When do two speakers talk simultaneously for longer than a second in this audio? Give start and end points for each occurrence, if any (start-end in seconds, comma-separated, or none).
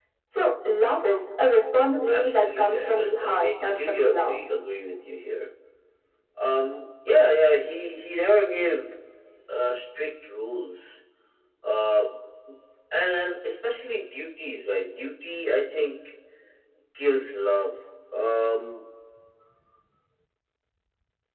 2.1-4.3